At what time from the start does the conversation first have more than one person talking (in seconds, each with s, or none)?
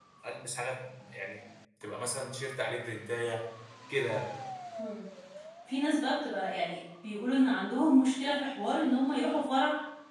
none